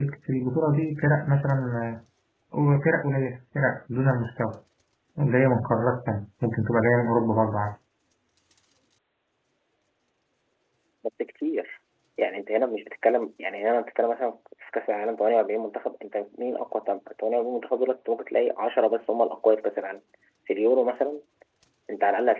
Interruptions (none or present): none